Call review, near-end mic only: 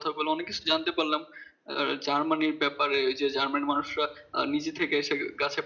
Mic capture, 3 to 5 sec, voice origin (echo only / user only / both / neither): echo only